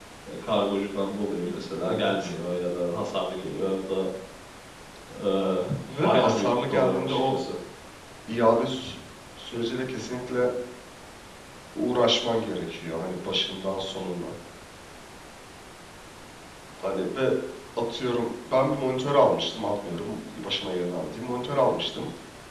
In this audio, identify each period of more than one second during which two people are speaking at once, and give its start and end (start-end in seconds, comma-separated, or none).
6.0-7.3